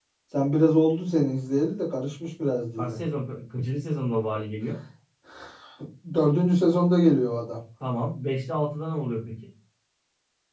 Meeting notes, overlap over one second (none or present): none